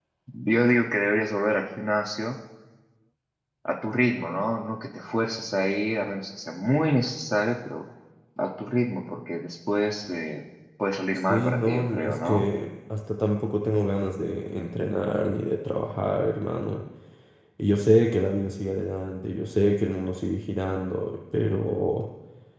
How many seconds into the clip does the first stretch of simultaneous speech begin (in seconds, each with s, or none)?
11.3 s